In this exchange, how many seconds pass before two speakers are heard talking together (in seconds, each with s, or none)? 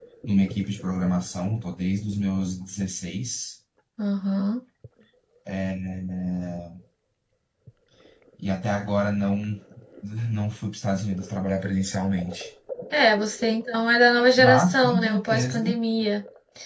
14.4 s